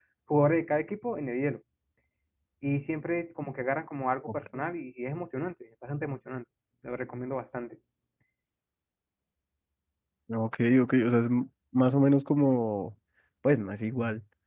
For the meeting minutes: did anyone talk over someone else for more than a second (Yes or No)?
No